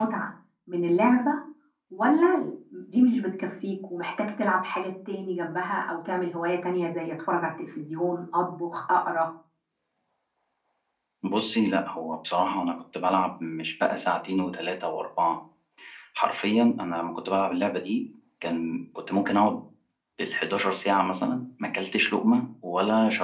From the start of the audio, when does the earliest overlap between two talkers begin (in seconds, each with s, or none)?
none